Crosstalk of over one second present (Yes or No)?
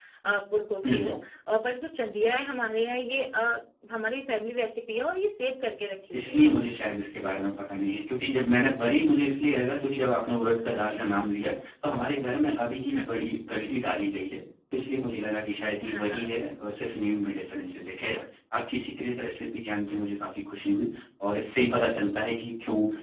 No